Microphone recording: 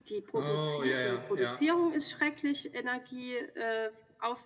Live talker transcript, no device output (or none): Oh, ja, ja, ja.